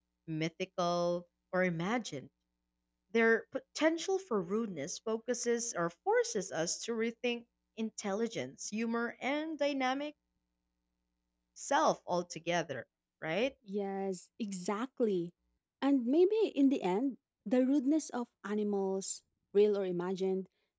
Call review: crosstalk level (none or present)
none